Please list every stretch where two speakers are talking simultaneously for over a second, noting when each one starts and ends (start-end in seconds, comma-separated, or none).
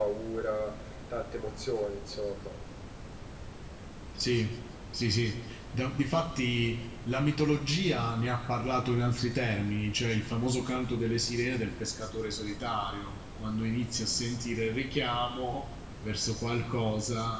none